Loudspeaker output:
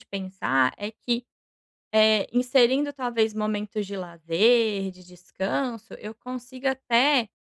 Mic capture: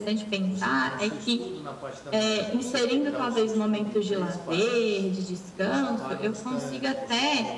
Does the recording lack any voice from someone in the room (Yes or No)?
No